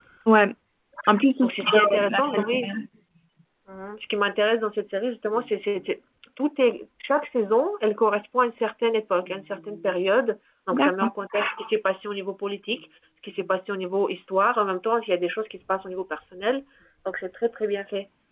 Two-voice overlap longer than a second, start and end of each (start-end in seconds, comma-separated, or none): 1.4-2.7